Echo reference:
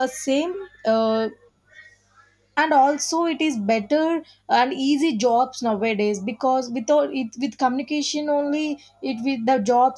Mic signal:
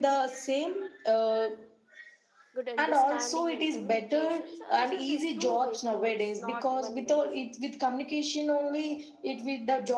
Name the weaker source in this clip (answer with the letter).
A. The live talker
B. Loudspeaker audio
A